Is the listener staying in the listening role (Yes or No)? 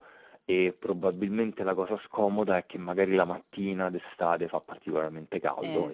Yes